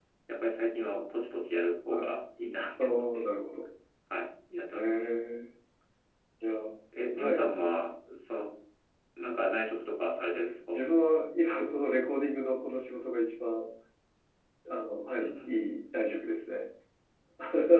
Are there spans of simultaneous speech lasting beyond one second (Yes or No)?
No